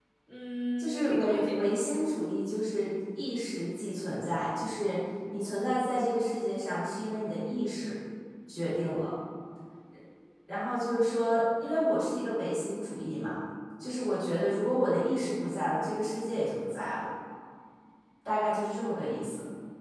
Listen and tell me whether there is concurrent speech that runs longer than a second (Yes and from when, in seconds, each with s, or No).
Yes, from 0.8 s